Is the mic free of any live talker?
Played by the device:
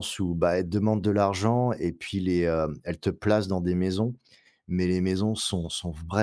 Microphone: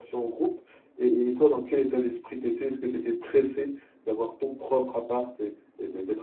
No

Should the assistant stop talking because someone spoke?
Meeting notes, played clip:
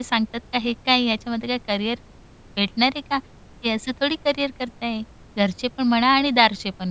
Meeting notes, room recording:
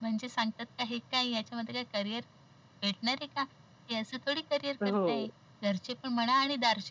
Yes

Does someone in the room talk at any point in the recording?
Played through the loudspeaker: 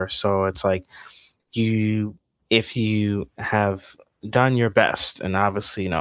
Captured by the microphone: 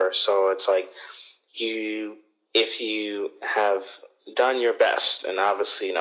No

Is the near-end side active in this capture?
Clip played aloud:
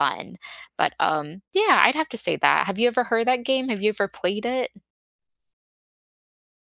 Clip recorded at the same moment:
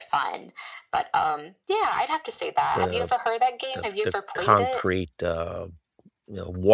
Yes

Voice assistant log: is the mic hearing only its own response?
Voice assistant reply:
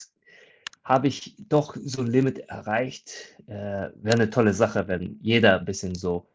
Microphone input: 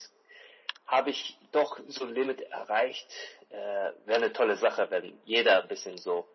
Yes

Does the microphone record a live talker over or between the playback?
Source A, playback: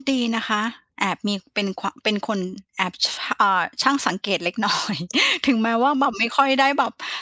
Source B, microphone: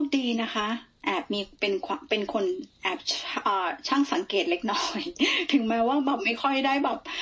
No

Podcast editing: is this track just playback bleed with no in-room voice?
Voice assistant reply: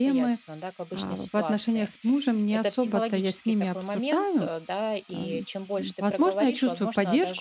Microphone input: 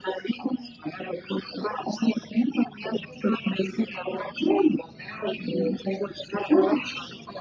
Yes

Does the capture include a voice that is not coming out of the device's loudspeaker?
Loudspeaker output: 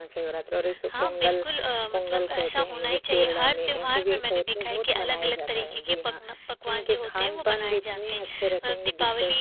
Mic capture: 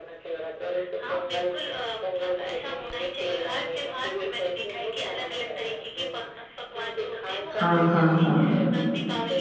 Yes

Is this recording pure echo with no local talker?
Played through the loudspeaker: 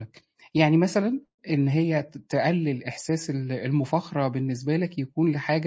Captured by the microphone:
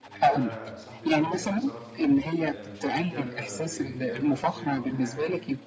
No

